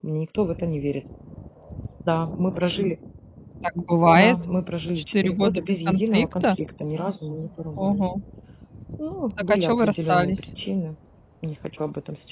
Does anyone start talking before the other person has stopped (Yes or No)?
Yes